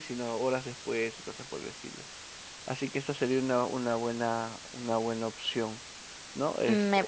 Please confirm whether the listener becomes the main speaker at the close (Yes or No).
Yes